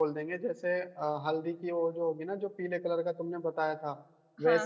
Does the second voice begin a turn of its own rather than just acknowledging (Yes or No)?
No